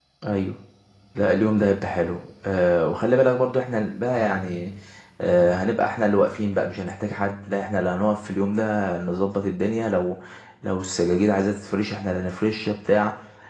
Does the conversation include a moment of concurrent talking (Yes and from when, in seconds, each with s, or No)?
No